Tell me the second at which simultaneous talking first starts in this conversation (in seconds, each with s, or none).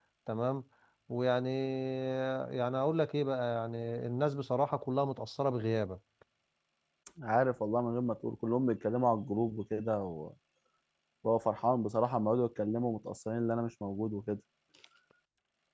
none